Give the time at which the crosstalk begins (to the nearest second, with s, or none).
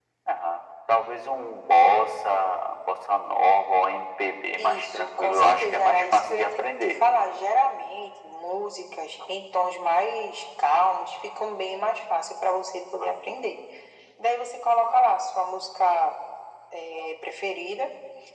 5 s